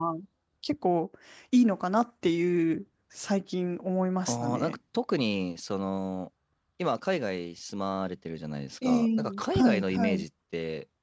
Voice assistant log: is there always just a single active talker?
No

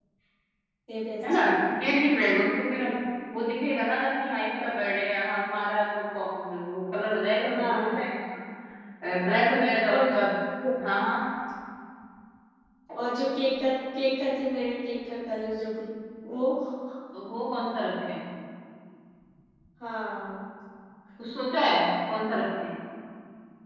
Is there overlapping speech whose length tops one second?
No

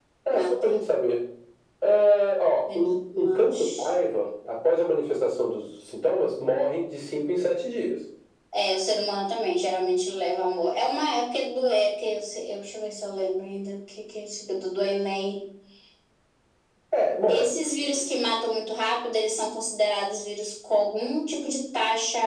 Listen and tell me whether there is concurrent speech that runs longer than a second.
Yes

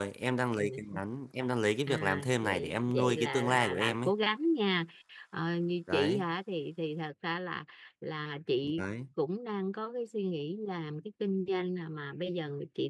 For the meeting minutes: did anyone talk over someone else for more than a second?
Yes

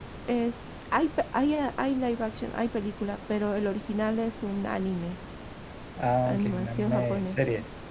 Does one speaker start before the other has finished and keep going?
Yes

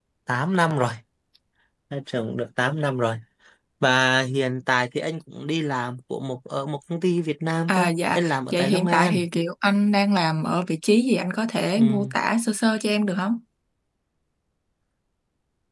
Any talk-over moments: Yes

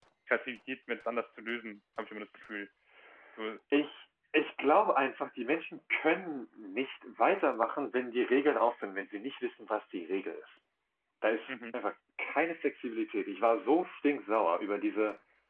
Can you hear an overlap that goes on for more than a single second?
No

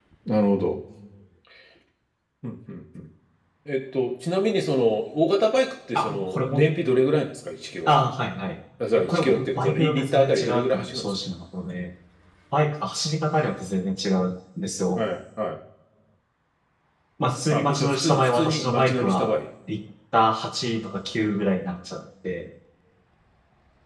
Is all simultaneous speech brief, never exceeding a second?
No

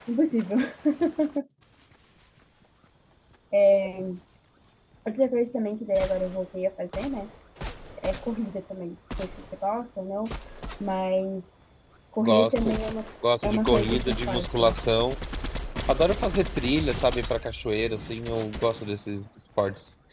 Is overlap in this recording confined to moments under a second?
No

